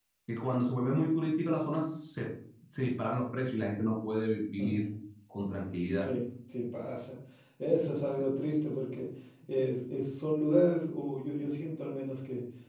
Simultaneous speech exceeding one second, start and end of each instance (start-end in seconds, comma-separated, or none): none